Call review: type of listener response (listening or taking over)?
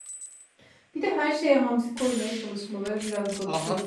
taking over